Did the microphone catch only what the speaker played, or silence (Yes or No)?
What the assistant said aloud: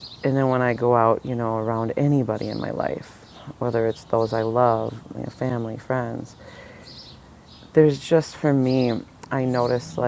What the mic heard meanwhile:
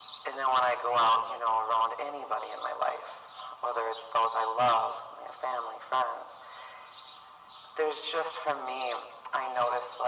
Yes